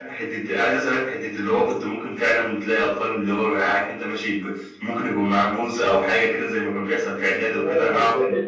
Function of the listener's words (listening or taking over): taking over